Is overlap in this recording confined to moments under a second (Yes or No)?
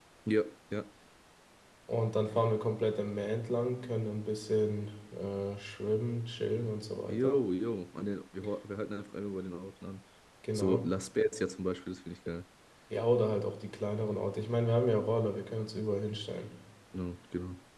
Yes